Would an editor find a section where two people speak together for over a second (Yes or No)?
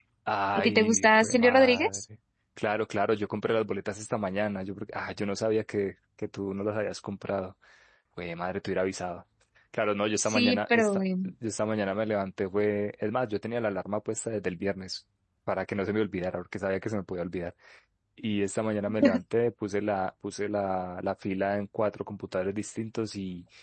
Yes